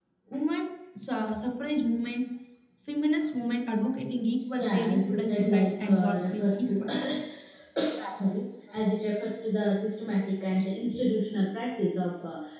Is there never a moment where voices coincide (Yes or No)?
No